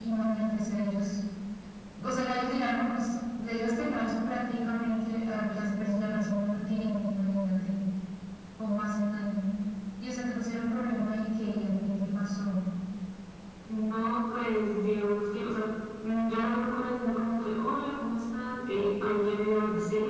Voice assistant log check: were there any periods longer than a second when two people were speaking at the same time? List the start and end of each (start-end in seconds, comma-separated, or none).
none